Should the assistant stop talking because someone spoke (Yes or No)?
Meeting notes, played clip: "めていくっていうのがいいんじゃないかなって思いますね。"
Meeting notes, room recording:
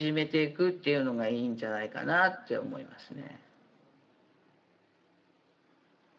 No